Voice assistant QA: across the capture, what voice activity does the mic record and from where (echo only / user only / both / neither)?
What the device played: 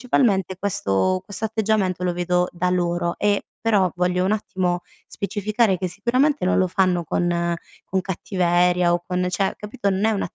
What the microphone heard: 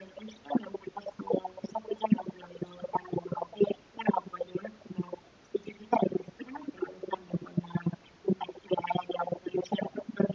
echo only